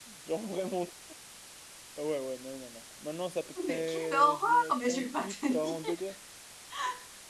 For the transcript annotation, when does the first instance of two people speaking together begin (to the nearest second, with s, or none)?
4 s